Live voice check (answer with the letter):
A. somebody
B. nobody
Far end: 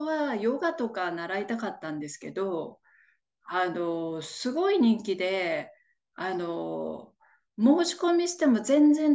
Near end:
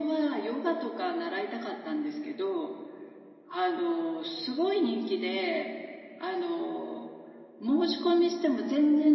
B